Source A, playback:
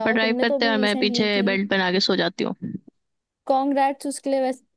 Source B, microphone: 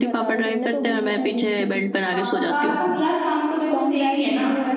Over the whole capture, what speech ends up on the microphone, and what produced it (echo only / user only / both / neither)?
both